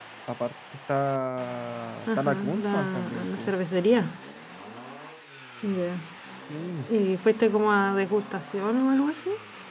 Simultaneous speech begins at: 2.1 s

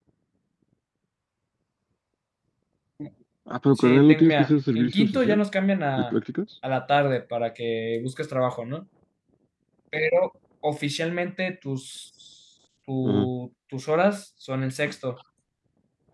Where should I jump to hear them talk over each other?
3.8 s

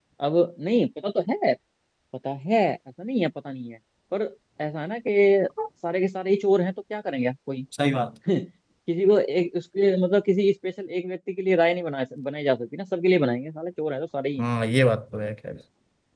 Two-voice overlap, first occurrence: none

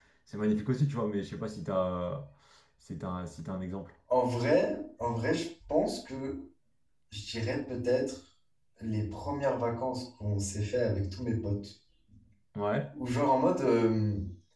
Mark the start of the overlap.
none

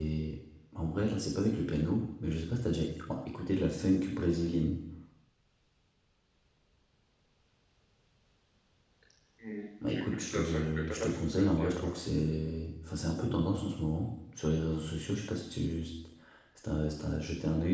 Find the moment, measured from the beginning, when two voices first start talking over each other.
9.8 s

